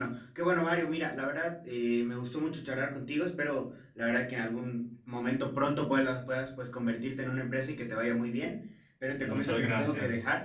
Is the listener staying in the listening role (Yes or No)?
Yes